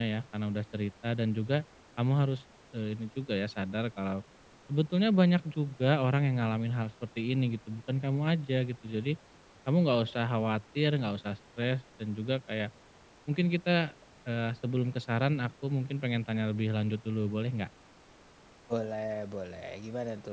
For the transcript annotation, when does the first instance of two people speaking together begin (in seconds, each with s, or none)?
none